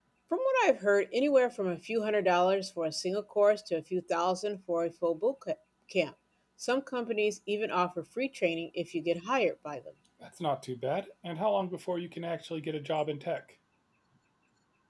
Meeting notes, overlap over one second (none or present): none